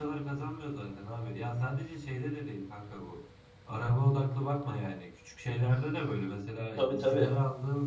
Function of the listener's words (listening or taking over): listening